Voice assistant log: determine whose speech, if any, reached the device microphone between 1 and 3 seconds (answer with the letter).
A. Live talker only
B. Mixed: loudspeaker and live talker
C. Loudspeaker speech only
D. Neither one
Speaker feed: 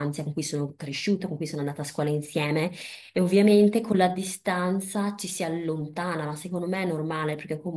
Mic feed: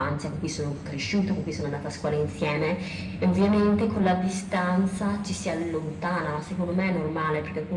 C